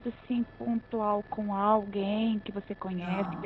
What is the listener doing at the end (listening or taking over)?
listening